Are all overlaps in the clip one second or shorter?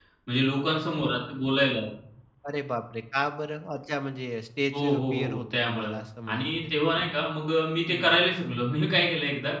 No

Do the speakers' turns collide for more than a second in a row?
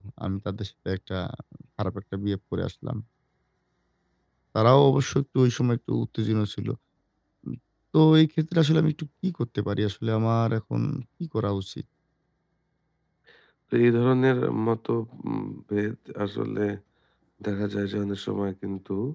No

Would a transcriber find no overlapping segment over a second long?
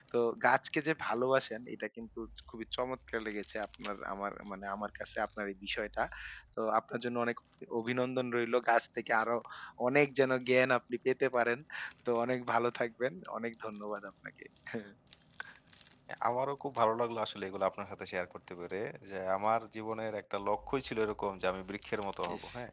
Yes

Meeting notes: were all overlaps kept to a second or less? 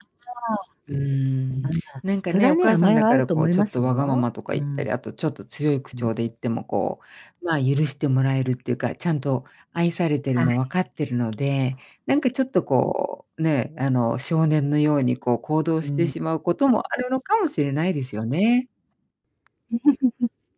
No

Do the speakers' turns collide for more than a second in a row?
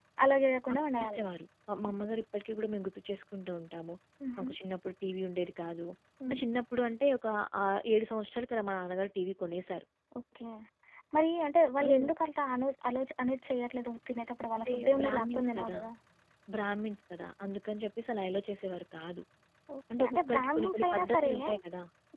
Yes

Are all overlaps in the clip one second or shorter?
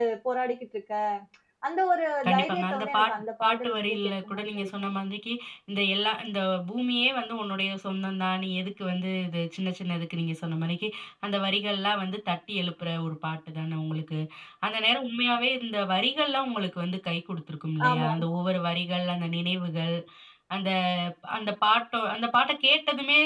No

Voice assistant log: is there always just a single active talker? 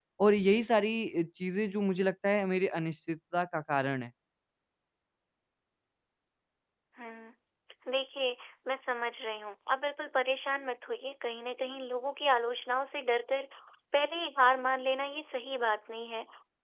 Yes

